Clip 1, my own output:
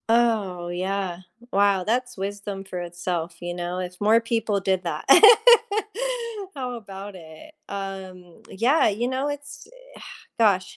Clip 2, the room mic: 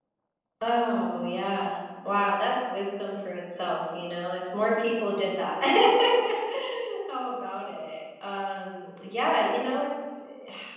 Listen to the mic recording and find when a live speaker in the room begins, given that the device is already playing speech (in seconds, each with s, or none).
none